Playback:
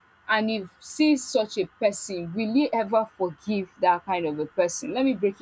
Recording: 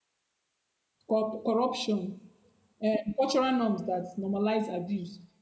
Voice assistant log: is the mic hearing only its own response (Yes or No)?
No